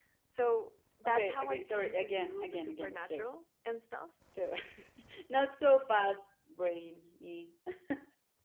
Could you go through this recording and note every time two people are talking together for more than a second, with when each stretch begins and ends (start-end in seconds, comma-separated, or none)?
1.1-3.3